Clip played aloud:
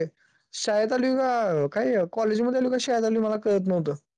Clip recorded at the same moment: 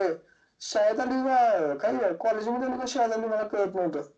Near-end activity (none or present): none